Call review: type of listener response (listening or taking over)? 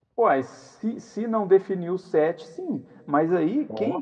listening